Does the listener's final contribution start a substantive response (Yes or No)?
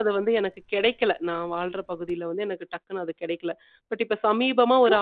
No